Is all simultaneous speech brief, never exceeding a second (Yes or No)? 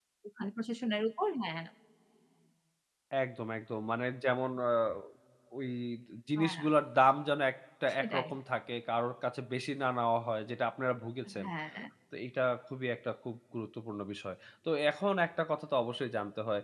Yes